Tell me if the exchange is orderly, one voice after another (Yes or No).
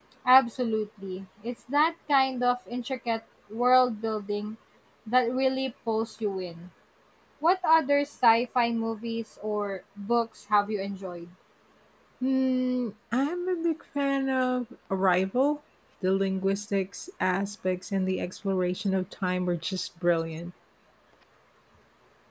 Yes